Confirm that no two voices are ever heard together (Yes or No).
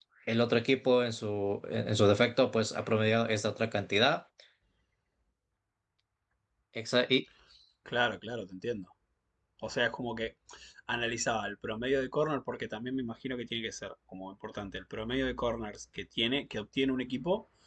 Yes